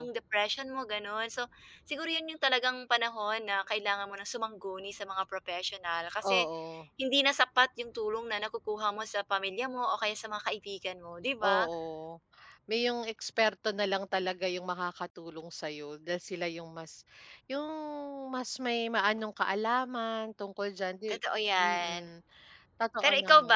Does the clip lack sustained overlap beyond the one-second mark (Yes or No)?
Yes